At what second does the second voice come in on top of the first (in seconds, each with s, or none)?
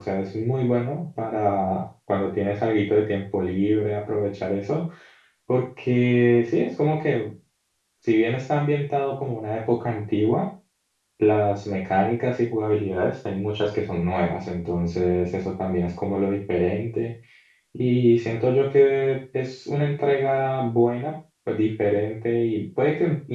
none